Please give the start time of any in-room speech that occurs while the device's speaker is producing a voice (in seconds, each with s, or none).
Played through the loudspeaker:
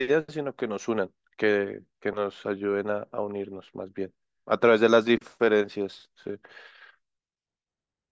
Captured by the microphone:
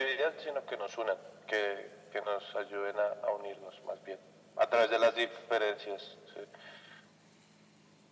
none